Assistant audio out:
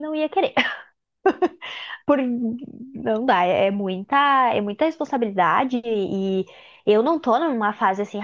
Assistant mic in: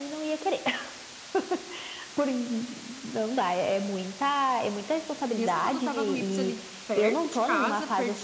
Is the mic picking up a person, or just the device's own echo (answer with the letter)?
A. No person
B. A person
B